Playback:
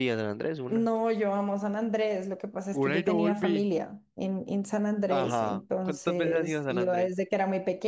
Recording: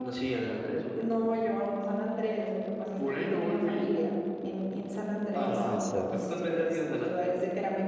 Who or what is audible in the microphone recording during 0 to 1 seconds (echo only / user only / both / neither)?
echo only